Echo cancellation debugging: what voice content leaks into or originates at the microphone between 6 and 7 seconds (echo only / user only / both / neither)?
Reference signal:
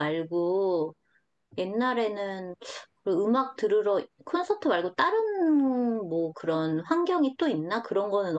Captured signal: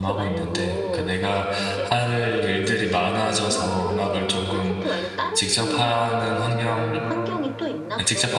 both